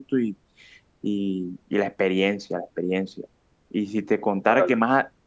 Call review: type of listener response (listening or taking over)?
listening